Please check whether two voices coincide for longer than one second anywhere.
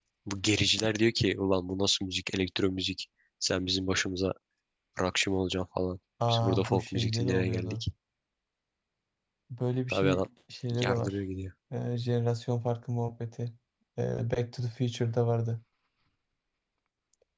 Yes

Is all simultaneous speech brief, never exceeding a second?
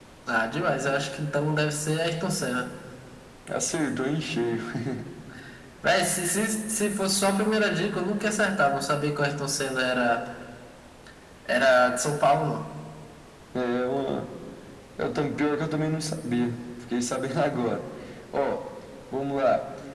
Yes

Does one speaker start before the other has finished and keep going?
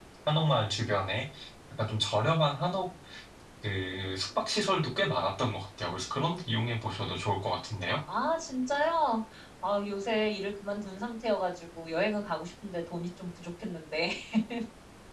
No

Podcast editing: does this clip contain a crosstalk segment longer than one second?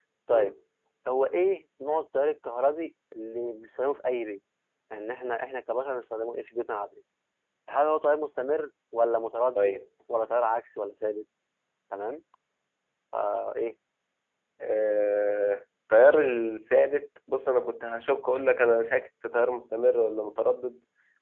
No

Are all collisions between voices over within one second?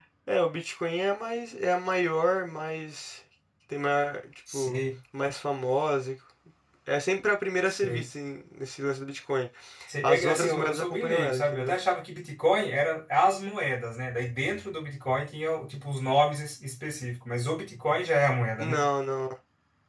No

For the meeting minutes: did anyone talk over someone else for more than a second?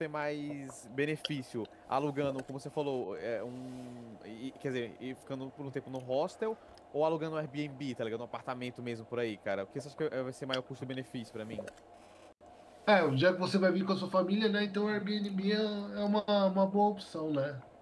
No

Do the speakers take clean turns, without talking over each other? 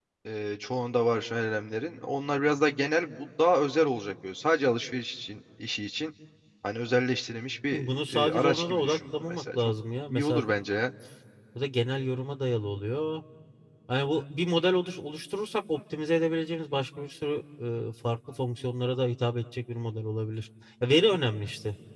No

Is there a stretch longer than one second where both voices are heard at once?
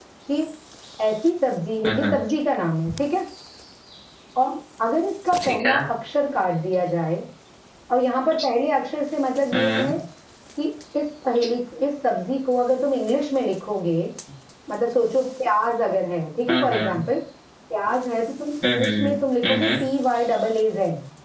No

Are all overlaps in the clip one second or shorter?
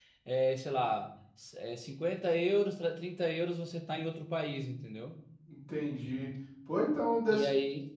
Yes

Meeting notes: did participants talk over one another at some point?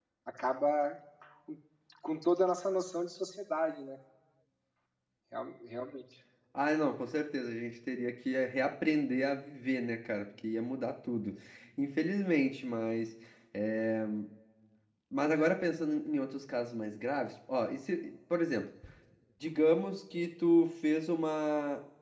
No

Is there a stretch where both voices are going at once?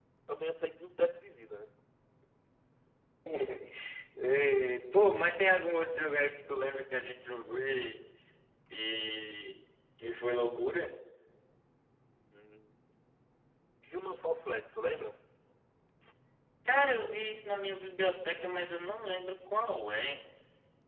No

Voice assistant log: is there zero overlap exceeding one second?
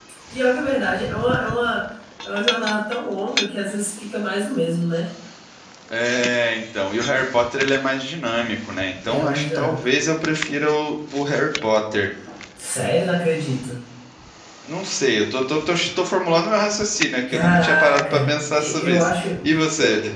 No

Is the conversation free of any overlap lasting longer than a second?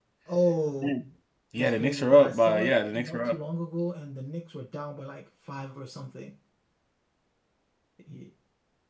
No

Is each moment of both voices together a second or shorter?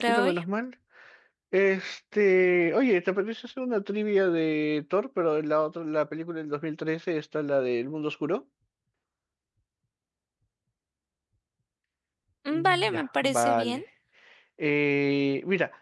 No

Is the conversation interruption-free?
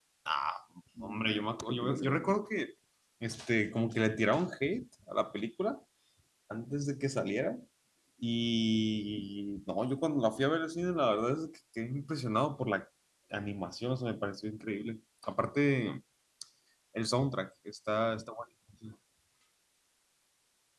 No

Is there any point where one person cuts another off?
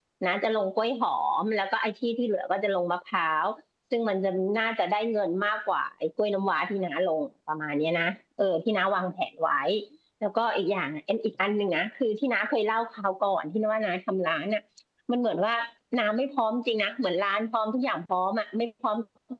No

